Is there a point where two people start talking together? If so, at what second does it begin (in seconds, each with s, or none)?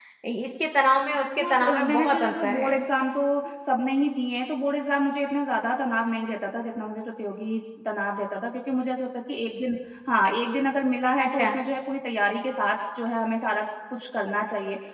1.4 s